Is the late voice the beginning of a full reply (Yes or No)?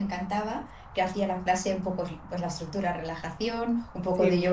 No